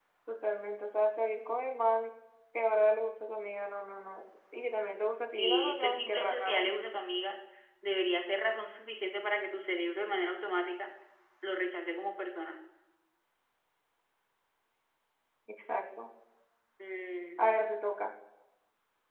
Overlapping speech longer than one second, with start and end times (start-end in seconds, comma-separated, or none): 5.3-6.7